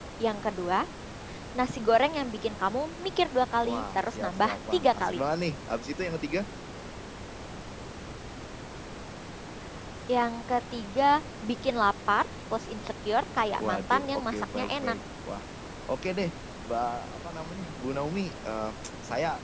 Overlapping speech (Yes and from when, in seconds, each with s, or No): Yes, from 3.7 s